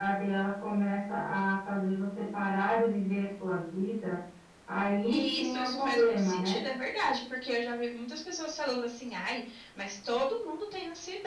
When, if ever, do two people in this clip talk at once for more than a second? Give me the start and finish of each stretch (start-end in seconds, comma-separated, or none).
5.1-6.6